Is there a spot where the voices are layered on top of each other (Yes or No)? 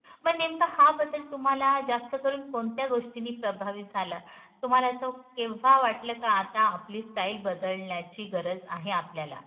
No